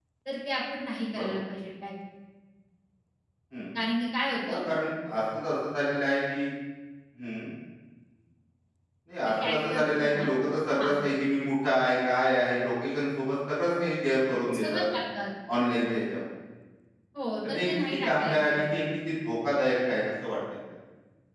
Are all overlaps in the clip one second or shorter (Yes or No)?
No